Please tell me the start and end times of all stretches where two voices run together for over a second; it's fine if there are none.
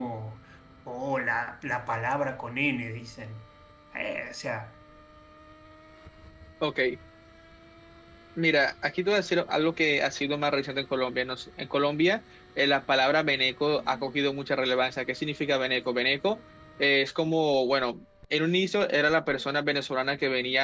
none

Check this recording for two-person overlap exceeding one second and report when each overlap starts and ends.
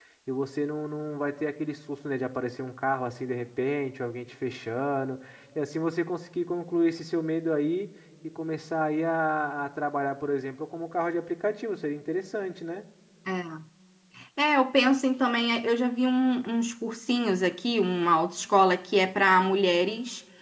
none

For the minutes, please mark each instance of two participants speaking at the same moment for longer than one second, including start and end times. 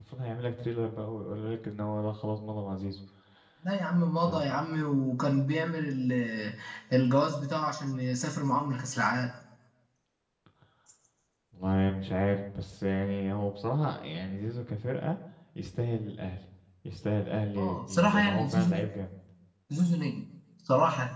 17.6-18.8

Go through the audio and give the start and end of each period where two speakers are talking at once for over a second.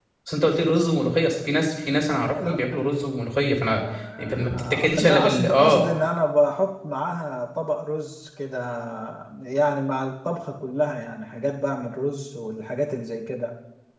4.2-5.8

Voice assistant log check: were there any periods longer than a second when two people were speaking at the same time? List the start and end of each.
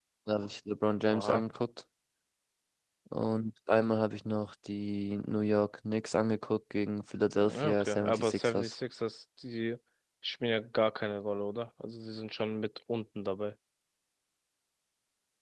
7.3-8.6

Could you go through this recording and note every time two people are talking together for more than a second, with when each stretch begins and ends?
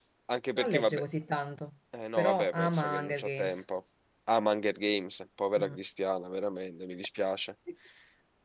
2.1-3.6

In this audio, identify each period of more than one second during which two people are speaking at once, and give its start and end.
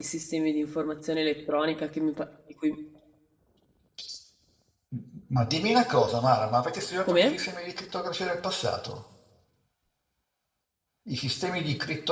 none

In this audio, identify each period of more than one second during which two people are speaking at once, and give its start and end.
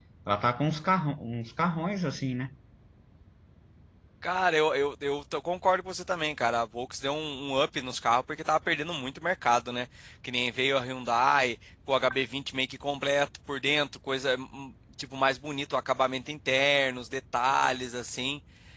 none

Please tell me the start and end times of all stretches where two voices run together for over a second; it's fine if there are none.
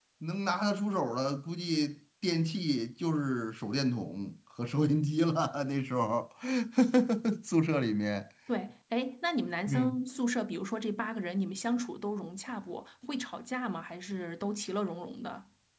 none

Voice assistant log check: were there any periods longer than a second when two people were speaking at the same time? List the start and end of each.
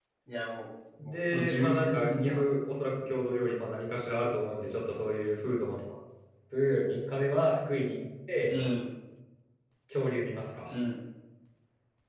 1.0-2.4

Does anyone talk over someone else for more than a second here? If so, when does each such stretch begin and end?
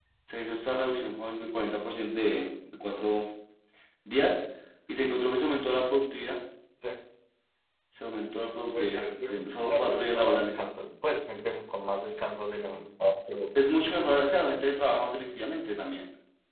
8.7-10.7

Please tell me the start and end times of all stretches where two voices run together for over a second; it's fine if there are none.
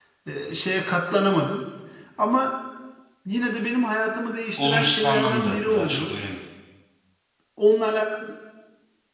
4.6-6.1

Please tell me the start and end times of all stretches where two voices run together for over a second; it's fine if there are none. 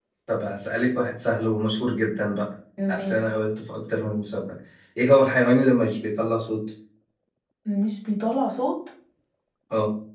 none

